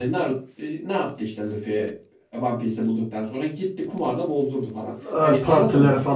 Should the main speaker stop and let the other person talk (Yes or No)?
Yes